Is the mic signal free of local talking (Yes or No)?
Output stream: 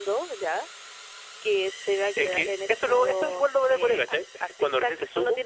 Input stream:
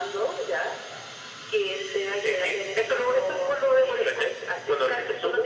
Yes